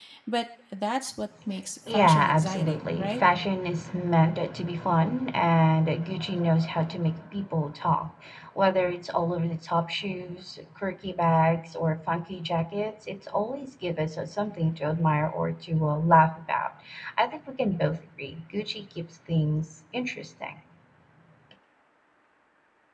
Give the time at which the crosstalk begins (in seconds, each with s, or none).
1.9 s